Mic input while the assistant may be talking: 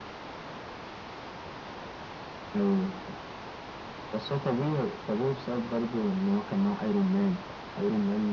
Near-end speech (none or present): none